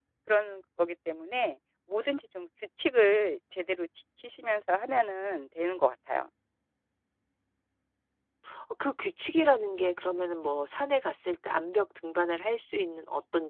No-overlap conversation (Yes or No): Yes